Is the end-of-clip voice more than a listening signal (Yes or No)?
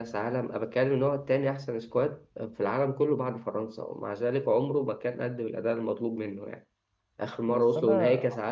No